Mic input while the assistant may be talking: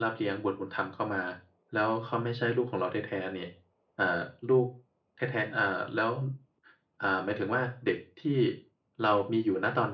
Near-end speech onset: none

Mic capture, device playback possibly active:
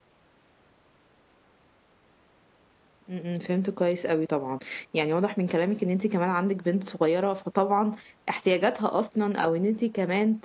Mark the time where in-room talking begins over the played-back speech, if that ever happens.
3.1 s

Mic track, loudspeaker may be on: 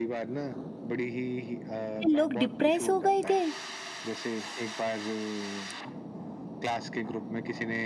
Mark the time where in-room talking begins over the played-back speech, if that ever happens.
2.1 s

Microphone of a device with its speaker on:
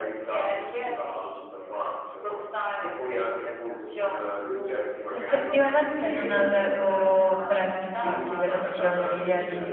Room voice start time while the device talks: 5.1 s

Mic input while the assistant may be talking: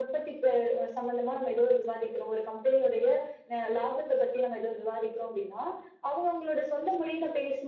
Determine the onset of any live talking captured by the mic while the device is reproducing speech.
none

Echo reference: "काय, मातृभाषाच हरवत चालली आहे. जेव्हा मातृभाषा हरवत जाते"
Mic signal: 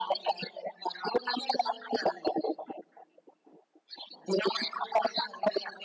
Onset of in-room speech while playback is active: none

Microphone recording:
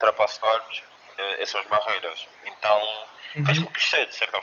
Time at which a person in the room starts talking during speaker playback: 3.3 s

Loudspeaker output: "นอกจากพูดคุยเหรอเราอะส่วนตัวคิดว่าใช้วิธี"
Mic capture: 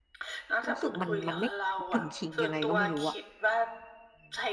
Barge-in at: 0.7 s

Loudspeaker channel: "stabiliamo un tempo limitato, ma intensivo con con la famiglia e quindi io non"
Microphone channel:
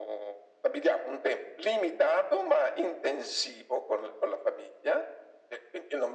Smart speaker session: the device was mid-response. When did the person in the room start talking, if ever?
none

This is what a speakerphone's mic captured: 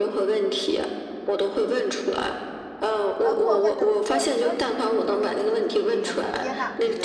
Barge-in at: 3.2 s

